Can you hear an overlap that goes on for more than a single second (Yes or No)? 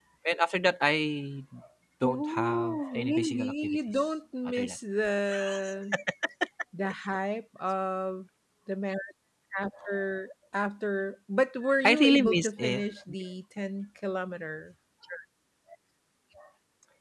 Yes